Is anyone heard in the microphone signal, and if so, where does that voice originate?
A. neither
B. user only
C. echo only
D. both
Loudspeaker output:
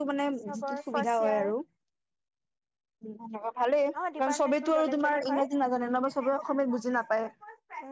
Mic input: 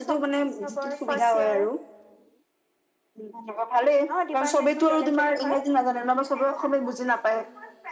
C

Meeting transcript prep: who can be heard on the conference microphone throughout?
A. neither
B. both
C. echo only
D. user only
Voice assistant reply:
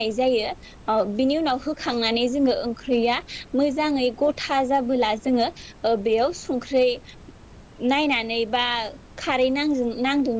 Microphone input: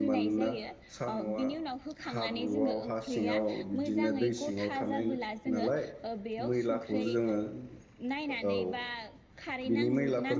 B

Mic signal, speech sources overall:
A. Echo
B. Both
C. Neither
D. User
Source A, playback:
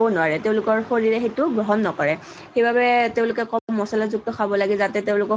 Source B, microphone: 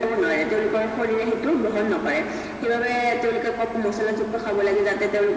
A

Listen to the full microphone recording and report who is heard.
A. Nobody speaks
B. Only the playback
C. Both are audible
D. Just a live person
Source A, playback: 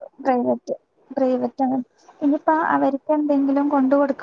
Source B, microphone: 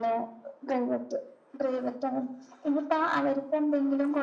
B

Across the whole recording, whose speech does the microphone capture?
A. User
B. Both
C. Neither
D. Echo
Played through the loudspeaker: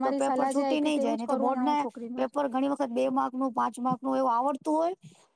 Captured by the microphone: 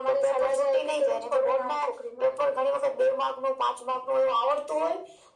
D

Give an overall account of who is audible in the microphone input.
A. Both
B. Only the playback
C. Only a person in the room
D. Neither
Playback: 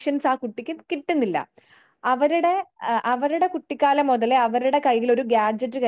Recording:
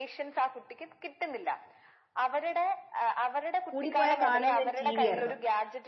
A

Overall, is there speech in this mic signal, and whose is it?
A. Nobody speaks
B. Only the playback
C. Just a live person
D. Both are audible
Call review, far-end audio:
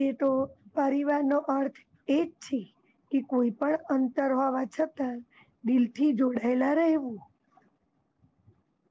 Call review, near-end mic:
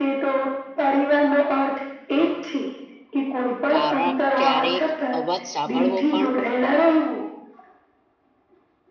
D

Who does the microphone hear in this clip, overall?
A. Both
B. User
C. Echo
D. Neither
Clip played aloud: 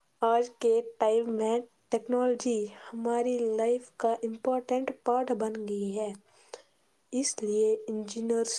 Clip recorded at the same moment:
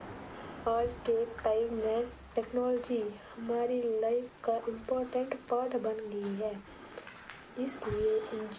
C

